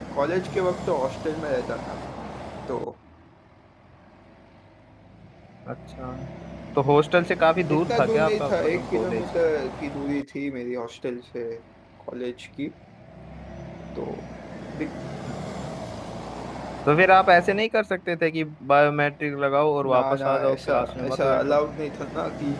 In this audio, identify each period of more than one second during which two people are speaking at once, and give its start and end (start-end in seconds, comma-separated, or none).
7.7-9.2, 19.8-21.6